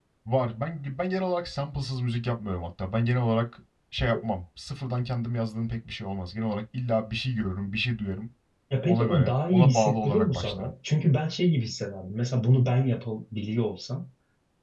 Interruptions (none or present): present